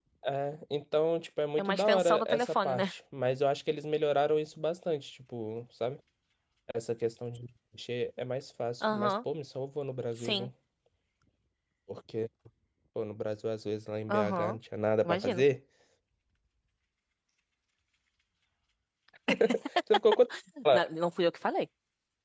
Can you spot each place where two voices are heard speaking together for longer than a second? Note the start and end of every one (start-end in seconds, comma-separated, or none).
1.6-2.9